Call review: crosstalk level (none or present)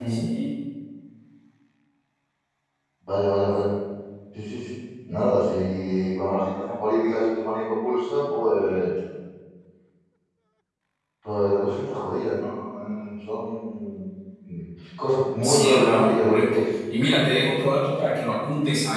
present